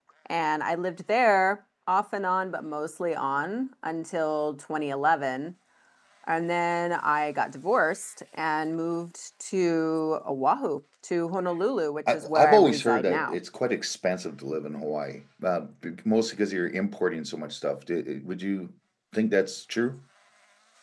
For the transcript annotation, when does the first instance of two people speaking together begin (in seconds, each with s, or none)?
12.1 s